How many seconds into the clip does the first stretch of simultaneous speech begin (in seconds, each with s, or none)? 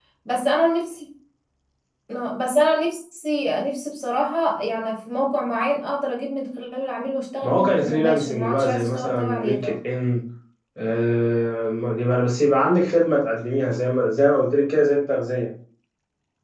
7.4 s